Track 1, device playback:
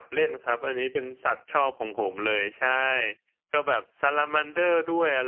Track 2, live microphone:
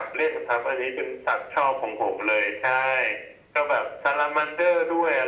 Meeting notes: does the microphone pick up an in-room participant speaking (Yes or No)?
No